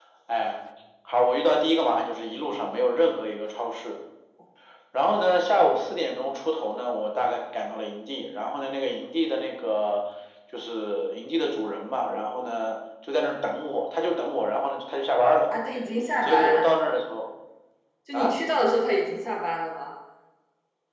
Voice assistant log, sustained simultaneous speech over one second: none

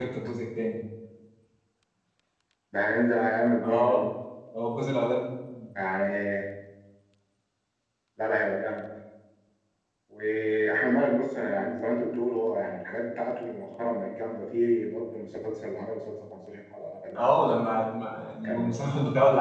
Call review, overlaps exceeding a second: none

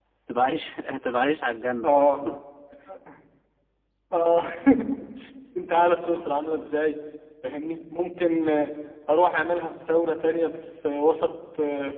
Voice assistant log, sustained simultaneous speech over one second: none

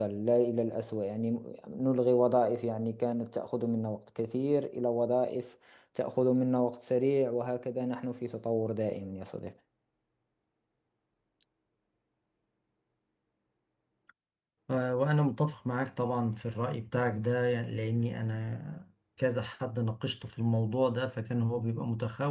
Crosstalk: none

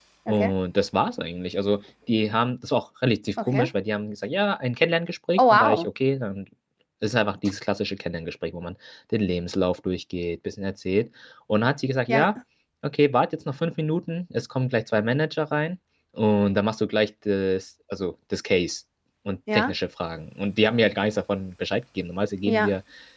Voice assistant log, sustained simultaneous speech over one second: none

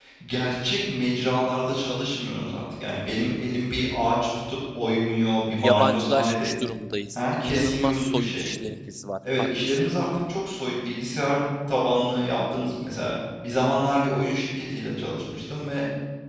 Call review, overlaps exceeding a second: present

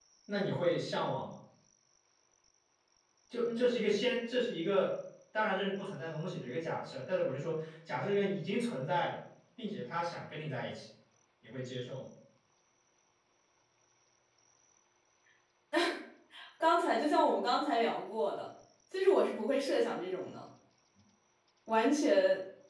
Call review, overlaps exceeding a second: none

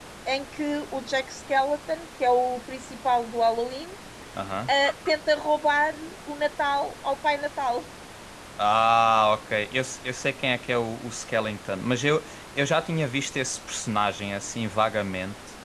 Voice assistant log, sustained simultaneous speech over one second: none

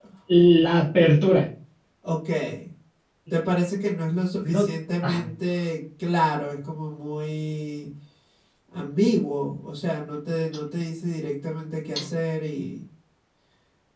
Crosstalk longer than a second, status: none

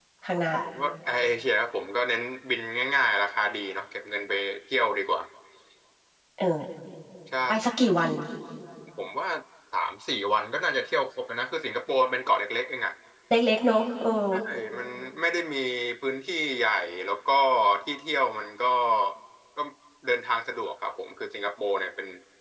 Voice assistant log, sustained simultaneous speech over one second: none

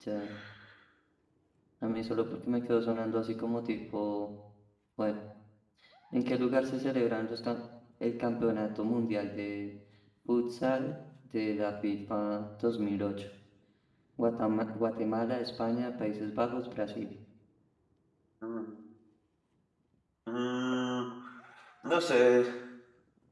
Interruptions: none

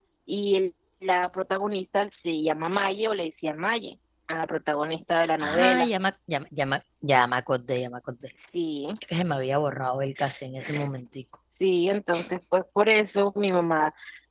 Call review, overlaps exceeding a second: none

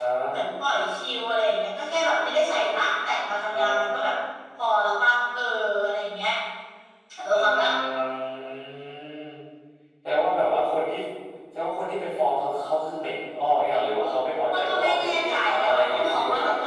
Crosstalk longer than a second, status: present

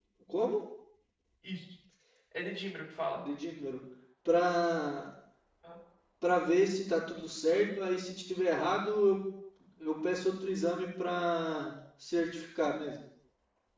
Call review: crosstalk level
none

